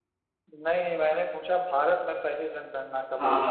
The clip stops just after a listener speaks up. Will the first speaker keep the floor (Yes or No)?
No